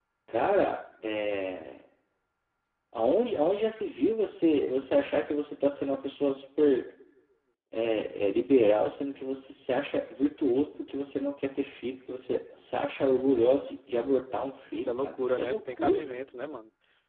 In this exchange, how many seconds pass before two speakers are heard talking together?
15 s

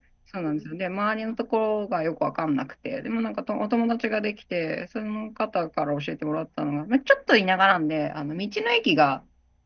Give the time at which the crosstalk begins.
none

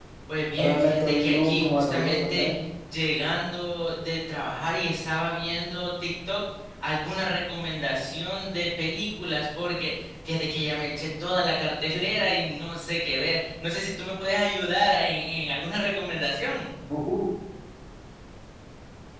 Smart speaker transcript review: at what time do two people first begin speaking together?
1 s

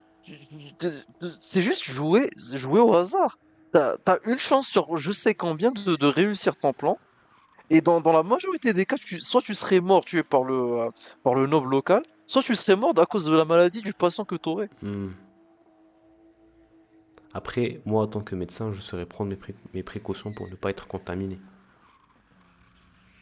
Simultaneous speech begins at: none

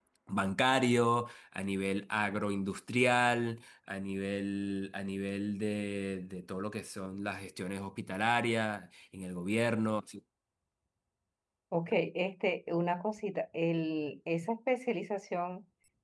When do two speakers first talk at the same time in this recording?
none

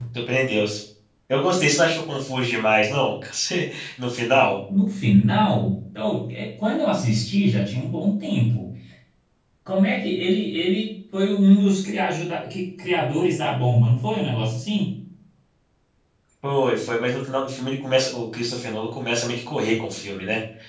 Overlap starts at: none

